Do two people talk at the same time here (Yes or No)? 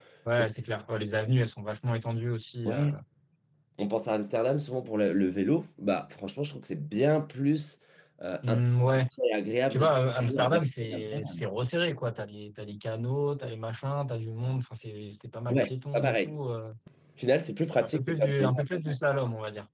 Yes